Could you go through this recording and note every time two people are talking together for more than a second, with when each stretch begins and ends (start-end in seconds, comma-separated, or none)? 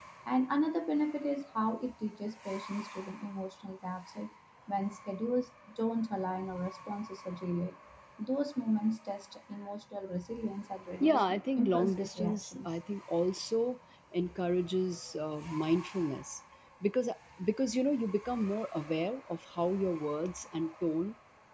11.0-12.7